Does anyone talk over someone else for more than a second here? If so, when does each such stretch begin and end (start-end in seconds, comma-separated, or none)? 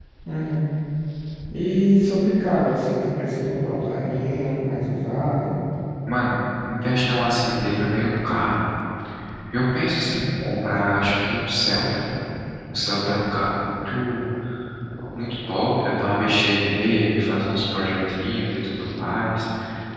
none